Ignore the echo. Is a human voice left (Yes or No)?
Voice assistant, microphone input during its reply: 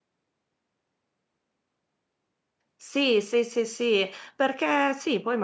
Yes